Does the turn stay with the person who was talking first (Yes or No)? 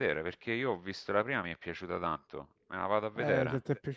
No